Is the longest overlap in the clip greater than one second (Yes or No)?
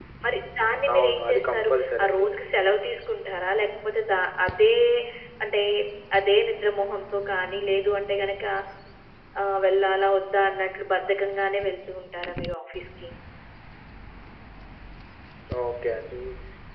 Yes